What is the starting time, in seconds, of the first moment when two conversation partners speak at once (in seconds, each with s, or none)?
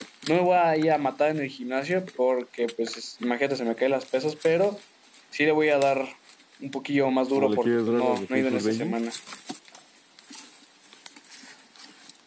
7.4 s